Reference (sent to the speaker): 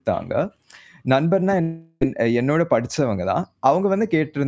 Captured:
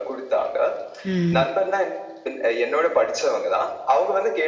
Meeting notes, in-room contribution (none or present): present